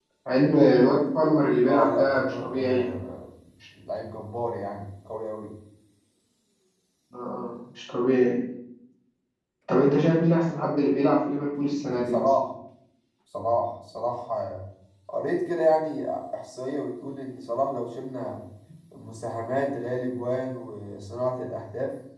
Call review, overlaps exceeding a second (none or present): present